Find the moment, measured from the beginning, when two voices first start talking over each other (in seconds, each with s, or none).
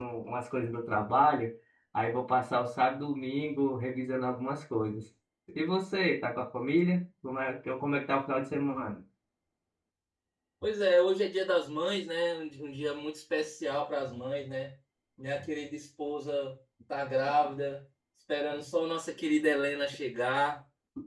none